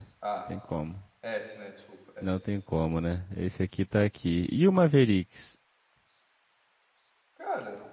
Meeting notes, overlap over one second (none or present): none